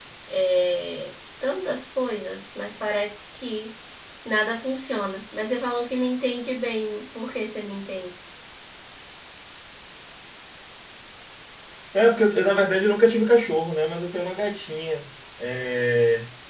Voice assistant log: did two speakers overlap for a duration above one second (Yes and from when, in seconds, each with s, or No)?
No